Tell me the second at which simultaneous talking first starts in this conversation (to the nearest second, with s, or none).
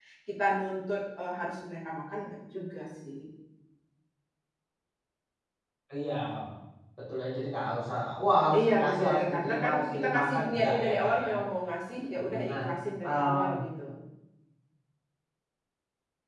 9 s